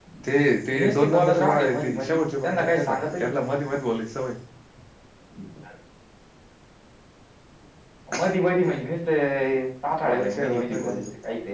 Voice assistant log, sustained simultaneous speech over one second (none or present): present